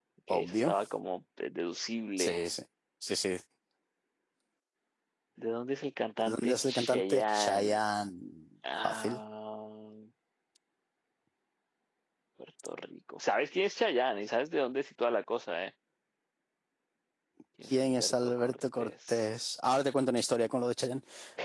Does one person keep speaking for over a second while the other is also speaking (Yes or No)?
Yes